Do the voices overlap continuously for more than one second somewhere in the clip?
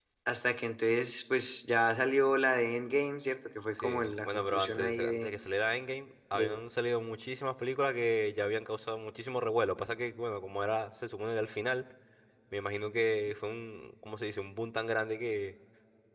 Yes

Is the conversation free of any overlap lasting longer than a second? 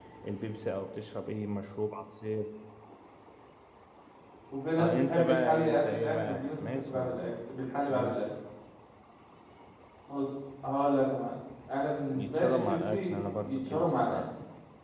No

